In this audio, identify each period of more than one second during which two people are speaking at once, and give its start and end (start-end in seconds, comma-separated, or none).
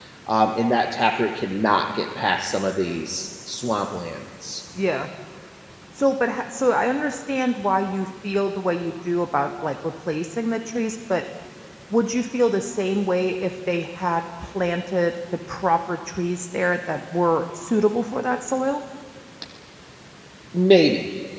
none